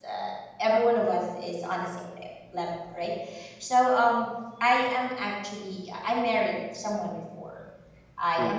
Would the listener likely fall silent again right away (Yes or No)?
Yes